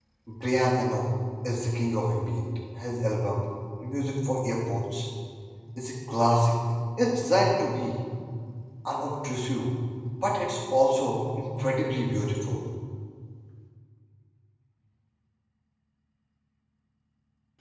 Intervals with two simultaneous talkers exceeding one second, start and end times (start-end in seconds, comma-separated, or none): none